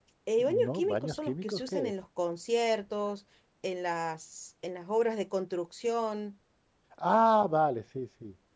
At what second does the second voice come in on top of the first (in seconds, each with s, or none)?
0.7 s